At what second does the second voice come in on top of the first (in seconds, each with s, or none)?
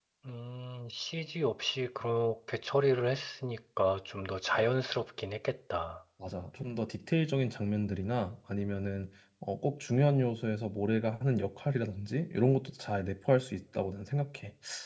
none